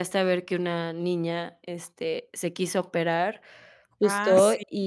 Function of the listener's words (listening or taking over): listening